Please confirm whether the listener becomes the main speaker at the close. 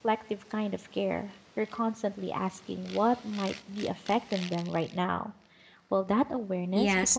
Yes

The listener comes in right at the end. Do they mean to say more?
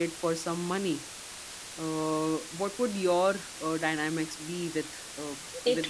Yes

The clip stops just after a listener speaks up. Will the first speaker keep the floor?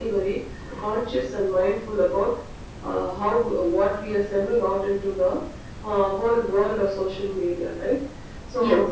Yes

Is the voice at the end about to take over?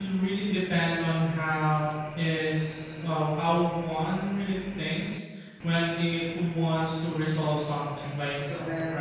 Yes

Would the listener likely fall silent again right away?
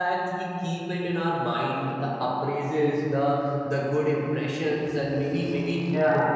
Yes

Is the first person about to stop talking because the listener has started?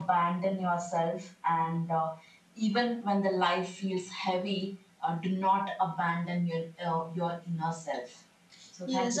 Yes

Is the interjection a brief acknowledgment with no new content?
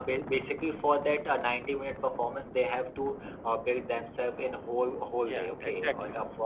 Yes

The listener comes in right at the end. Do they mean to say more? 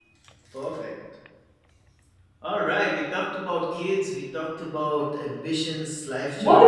Yes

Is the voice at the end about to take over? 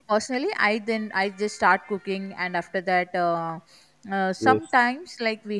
No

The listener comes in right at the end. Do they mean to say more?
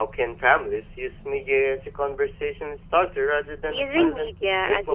Yes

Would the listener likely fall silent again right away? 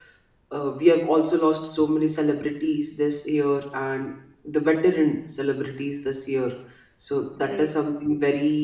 Yes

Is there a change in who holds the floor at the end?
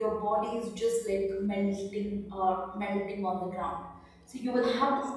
No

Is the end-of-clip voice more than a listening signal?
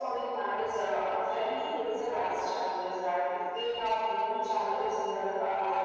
No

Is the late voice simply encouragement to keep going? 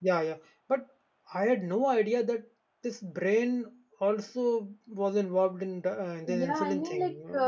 No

